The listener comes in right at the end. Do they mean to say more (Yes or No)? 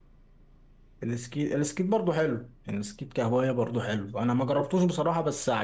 No